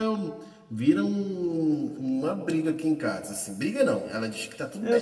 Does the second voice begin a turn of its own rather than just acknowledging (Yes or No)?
No